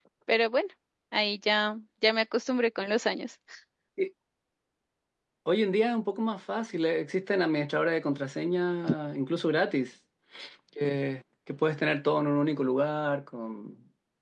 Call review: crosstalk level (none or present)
none